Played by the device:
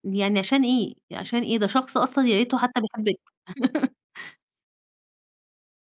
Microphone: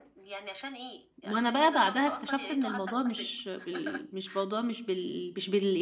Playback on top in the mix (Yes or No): No